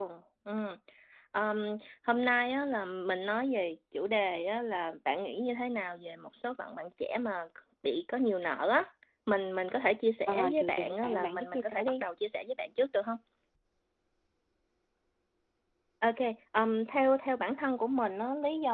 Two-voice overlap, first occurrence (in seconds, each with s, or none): 10.3 s